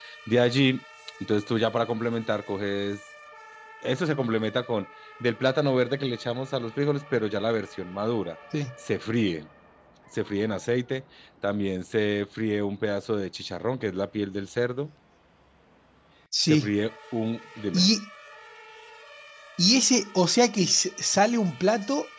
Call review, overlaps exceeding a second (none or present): none